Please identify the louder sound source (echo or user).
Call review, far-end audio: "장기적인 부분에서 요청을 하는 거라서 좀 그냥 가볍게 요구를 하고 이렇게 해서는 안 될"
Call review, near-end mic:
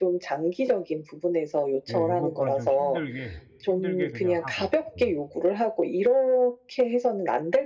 echo